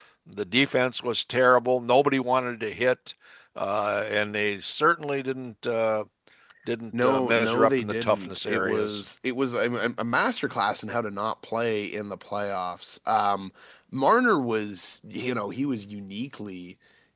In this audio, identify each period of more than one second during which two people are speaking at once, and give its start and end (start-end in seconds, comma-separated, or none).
7.0-9.0